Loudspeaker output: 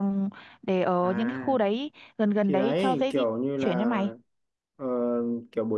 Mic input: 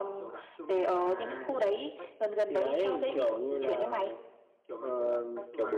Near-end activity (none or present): present